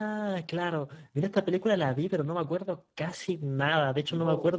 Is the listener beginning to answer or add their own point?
No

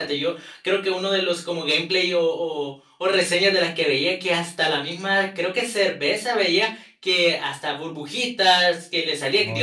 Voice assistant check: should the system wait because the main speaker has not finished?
Yes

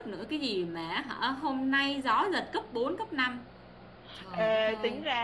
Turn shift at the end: Yes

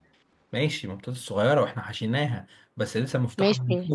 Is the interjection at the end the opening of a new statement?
Yes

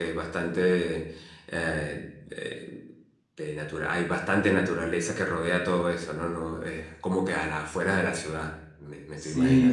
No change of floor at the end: No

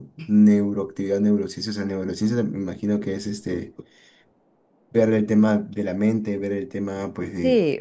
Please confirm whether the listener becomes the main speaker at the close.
Yes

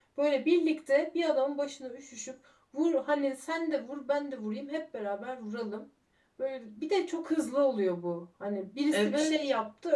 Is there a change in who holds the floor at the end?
No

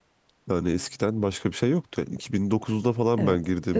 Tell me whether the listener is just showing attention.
No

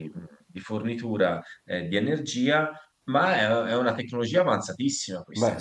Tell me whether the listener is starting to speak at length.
No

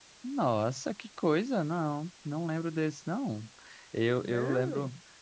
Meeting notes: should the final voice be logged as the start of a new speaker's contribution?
No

